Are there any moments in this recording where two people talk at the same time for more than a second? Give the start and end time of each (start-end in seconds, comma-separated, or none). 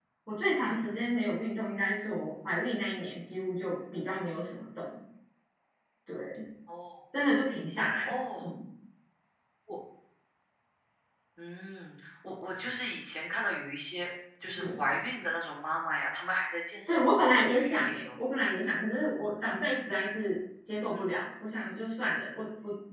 16.9-18.2